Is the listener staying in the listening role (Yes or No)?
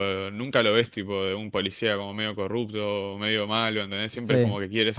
No